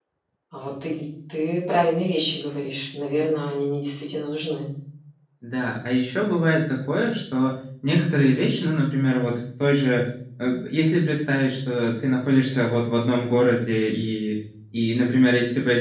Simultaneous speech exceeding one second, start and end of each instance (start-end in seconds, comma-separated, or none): none